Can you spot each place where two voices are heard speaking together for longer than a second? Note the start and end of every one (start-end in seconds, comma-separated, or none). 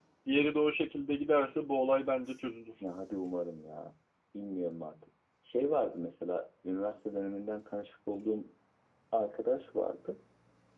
none